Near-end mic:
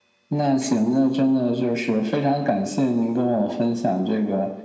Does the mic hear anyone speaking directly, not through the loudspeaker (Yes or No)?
No